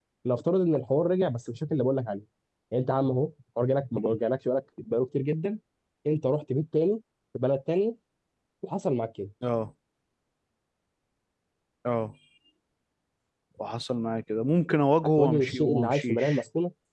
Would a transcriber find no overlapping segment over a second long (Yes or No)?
No